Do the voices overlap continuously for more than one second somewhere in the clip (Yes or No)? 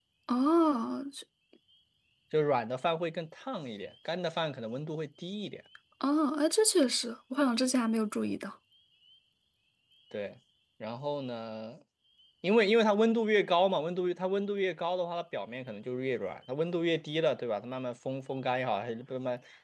No